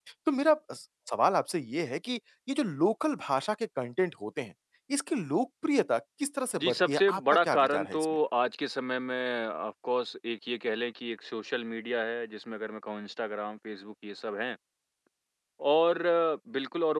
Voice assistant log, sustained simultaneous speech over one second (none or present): present